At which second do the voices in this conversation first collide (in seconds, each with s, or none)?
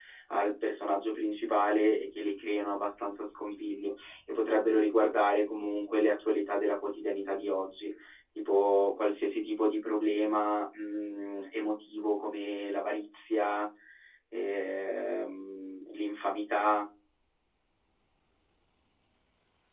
none